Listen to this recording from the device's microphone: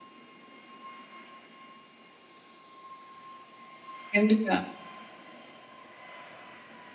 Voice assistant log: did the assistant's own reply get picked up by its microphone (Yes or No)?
No